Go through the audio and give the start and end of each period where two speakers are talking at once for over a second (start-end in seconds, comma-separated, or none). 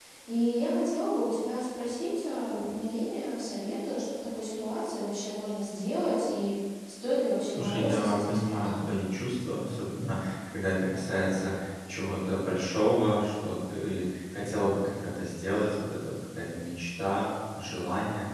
7.5-8.9